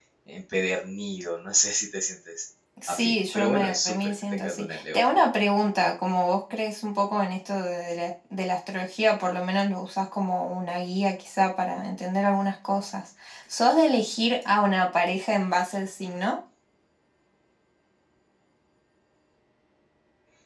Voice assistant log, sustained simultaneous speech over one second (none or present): present